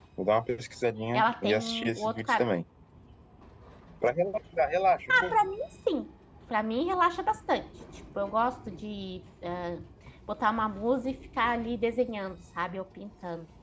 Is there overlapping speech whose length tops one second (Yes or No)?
Yes